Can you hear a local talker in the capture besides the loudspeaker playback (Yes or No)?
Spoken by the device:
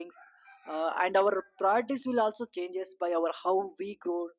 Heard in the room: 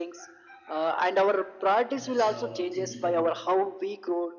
Yes